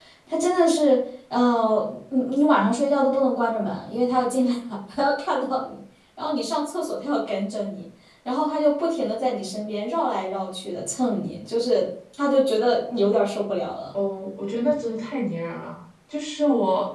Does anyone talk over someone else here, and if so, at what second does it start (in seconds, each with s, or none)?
none